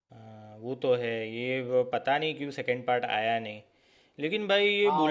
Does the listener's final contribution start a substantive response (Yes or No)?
Yes